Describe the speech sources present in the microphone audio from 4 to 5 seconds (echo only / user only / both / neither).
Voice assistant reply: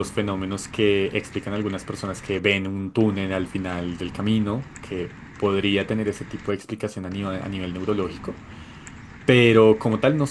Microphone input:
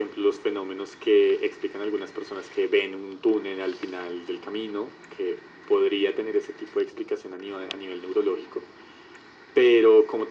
echo only